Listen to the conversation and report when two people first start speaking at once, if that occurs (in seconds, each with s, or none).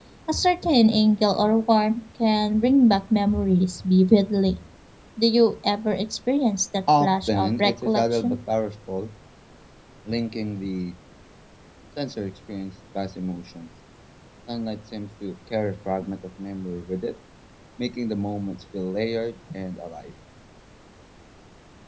6.9 s